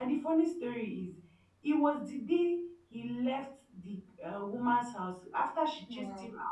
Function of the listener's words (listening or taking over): listening